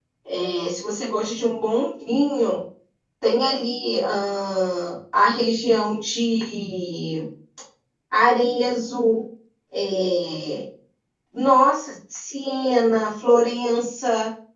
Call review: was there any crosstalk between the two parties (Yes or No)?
No